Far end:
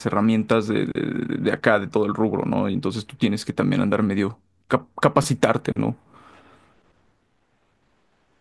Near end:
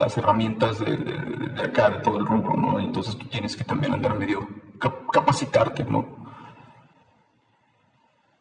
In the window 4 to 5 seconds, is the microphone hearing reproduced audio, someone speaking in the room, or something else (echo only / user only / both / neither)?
echo only